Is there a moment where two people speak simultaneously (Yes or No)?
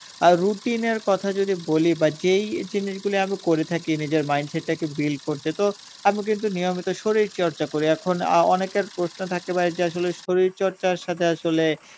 No